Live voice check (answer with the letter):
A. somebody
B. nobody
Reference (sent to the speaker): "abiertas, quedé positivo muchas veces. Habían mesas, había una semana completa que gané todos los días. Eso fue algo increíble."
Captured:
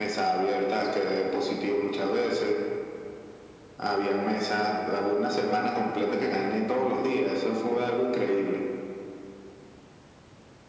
B